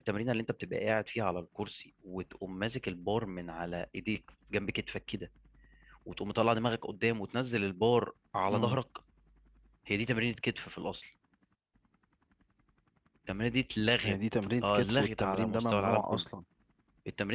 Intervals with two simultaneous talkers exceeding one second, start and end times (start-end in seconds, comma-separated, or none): 14.6-16.2